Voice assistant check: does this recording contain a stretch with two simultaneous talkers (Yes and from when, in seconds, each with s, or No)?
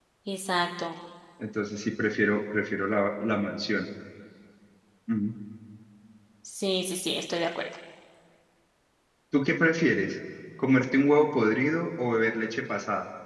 No